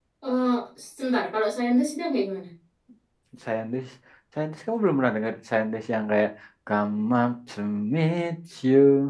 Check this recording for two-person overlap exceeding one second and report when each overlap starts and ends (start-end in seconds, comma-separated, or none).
none